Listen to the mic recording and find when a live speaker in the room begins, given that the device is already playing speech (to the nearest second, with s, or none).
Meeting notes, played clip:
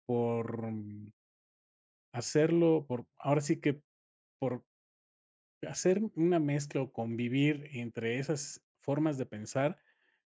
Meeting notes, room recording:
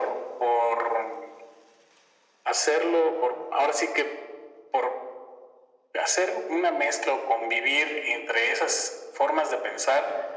none